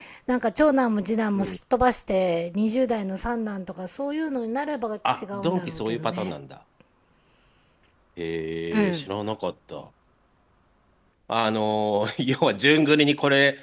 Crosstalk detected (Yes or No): Yes